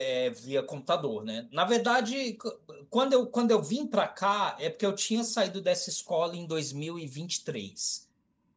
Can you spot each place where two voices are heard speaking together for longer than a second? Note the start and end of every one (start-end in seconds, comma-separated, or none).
none